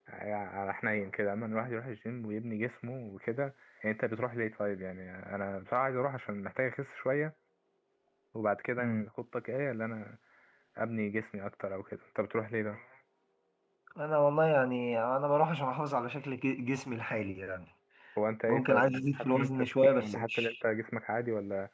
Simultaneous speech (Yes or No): Yes